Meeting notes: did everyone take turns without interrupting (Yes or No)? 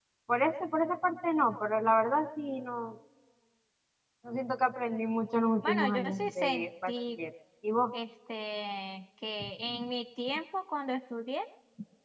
No